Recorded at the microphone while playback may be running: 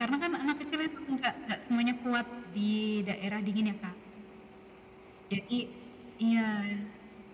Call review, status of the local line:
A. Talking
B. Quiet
B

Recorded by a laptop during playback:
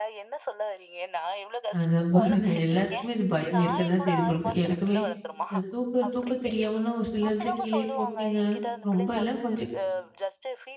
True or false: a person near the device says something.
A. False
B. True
B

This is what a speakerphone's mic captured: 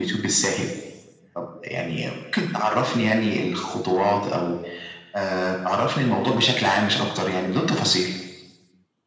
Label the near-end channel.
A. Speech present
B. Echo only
B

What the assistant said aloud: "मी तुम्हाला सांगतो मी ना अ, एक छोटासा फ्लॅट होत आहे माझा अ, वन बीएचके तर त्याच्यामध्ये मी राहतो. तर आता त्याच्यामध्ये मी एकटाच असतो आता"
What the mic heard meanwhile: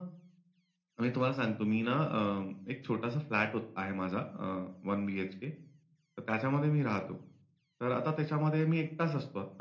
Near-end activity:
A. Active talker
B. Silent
B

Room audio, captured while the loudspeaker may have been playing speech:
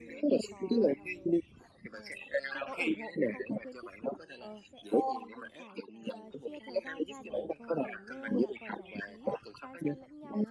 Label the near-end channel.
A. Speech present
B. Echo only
A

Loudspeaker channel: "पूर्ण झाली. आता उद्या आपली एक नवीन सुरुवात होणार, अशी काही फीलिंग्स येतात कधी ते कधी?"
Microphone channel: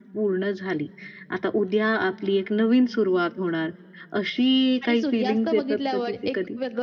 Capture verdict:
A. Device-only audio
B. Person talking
B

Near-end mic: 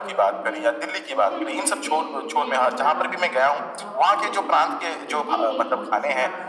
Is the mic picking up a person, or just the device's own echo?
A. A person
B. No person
A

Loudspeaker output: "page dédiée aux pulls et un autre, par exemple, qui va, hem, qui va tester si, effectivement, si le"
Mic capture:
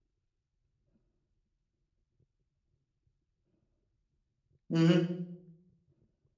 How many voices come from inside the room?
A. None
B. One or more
B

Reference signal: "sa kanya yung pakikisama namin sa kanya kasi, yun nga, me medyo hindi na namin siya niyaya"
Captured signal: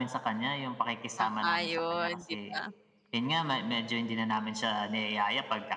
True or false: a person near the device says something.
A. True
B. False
A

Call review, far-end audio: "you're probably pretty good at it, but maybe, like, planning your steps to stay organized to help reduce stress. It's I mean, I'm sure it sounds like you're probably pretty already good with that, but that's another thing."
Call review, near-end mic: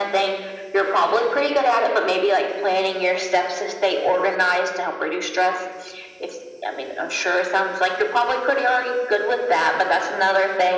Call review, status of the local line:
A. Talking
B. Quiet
B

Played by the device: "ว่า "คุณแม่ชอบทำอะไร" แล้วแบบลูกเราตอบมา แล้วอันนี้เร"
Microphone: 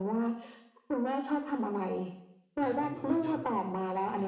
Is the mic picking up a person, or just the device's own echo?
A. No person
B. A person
B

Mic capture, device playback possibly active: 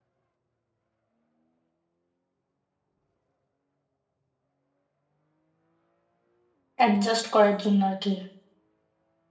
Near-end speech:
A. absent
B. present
B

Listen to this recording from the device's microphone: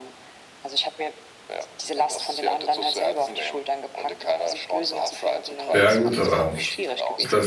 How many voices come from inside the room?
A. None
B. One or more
B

